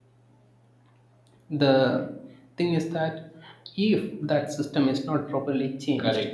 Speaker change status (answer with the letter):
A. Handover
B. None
A